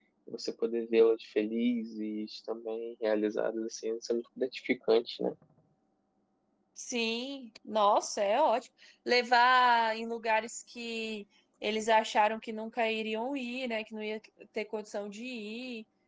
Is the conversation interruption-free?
Yes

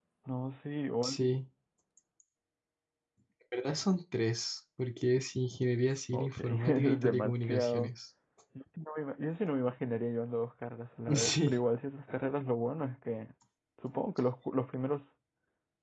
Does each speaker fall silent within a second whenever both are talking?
No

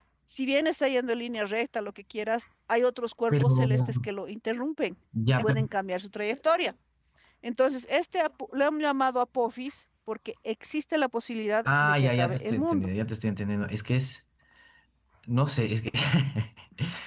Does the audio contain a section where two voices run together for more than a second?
Yes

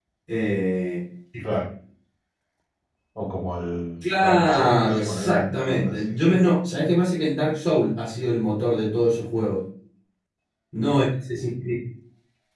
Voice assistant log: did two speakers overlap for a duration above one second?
Yes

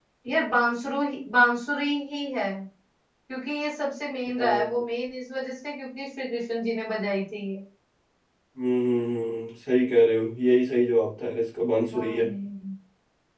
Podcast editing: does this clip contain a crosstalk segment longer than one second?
No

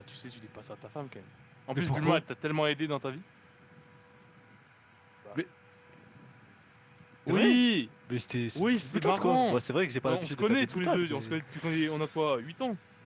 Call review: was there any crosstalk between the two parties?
Yes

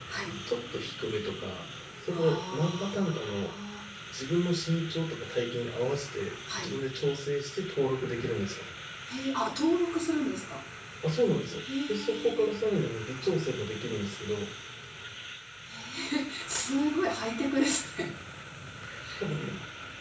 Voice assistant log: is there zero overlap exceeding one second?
No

